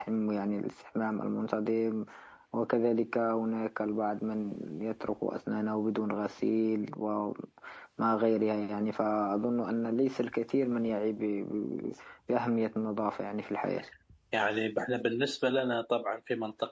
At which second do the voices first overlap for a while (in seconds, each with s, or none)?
none